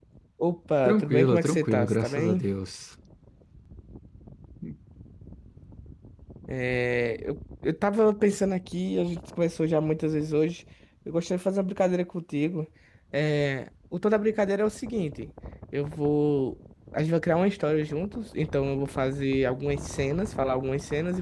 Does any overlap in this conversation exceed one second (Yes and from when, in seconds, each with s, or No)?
Yes, from 0.8 s